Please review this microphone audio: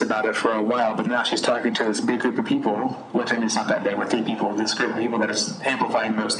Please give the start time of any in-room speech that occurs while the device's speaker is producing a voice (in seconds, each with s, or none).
none